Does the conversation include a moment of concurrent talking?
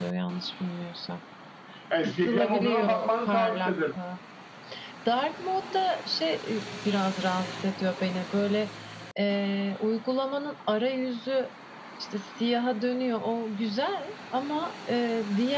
Yes, from 2.0 s

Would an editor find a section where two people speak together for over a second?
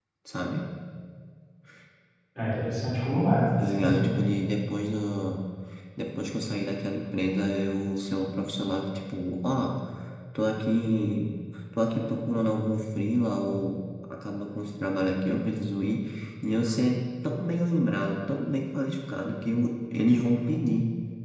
No

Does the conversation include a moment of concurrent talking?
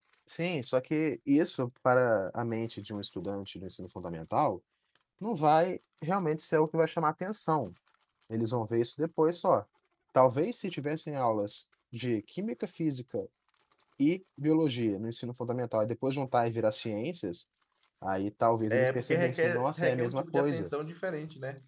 Yes, from 18.7 s

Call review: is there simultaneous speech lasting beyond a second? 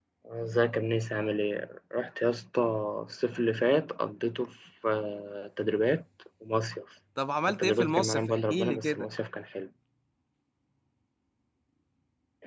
Yes, from 7.5 s

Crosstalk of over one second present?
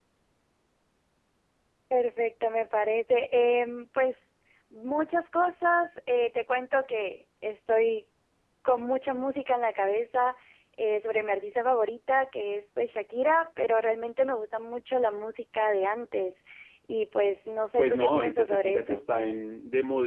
Yes, from 17.8 s

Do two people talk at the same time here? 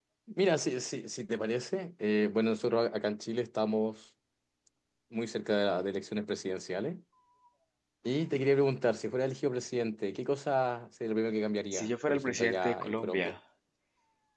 Yes, from 11.7 s

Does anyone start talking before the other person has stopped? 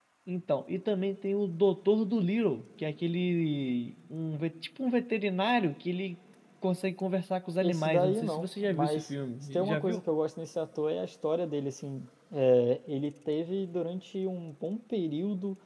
Yes, from 7.6 s

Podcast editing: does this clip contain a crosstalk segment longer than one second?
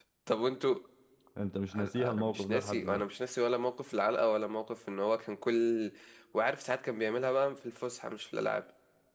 Yes, from 1.8 s

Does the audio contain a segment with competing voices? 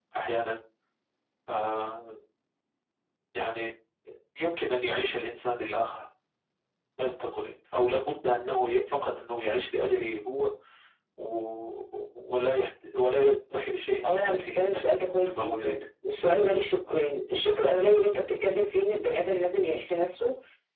Yes, from 14.0 s

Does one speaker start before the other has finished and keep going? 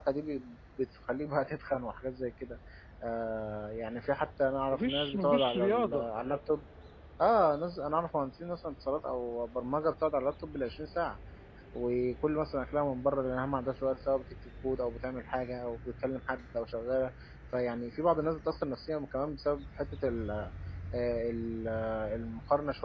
Yes, from 4.7 s

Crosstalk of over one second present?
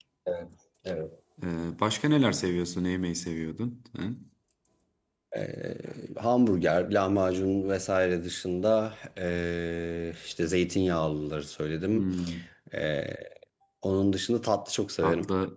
No

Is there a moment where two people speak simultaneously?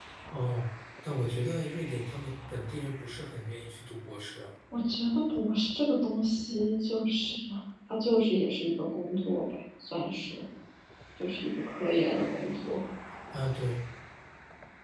No

